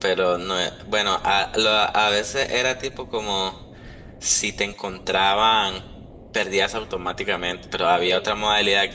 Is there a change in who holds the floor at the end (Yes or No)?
No